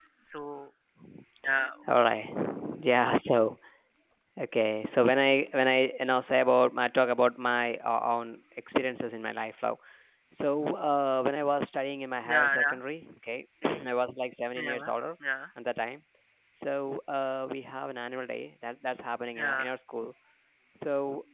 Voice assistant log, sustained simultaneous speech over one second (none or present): none